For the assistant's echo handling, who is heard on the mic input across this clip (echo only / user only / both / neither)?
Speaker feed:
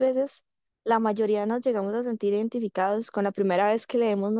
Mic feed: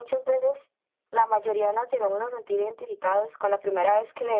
echo only